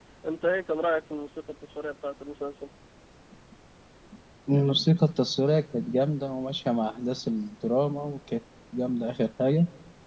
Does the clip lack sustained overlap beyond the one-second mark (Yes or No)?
Yes